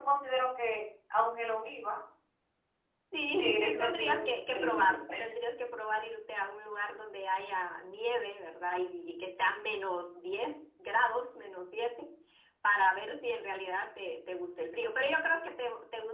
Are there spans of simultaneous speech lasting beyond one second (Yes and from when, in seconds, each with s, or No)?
Yes, from 3.4 s